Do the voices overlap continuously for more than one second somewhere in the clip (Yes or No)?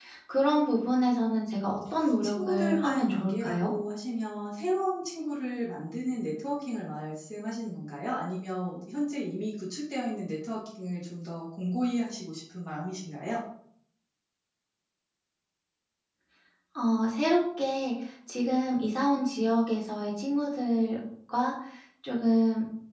Yes